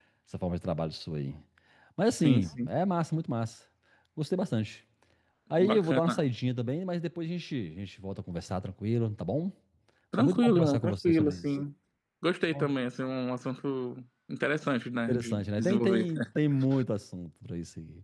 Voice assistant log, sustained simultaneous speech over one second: present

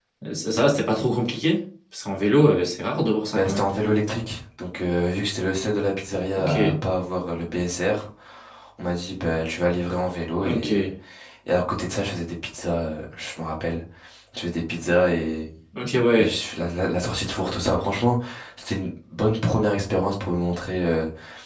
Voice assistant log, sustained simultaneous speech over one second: none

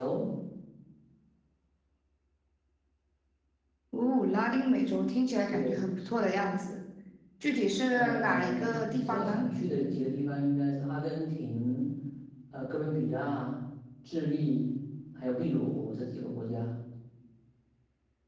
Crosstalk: present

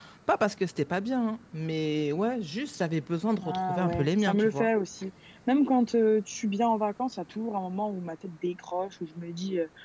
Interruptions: present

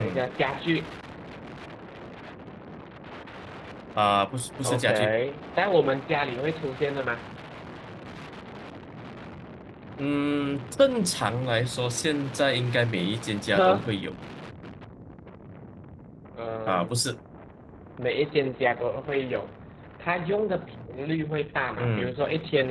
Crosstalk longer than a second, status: none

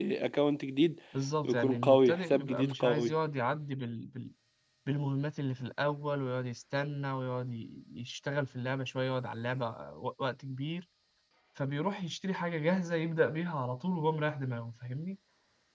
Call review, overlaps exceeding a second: present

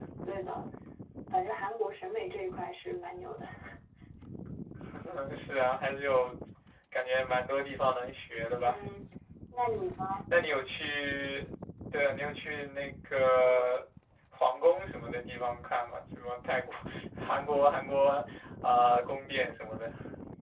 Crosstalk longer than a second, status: none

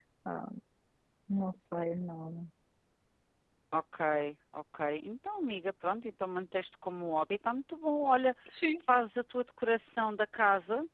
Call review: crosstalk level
none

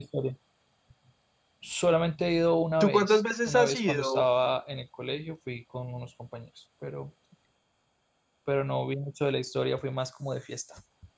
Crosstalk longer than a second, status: present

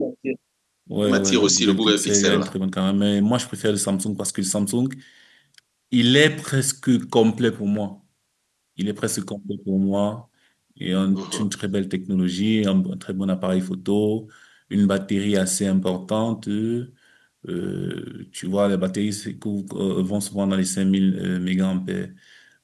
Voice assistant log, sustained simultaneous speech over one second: present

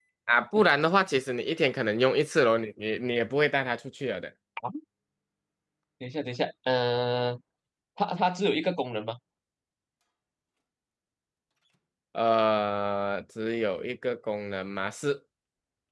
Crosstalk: none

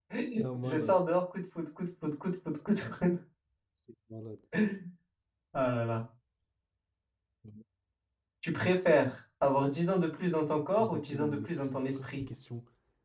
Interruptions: present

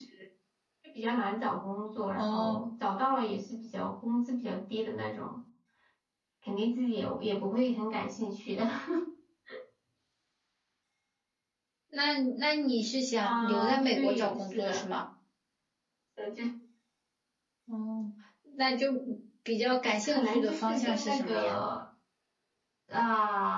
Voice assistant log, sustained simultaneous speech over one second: present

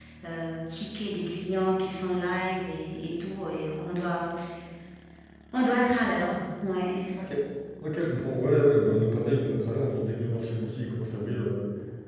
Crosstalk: none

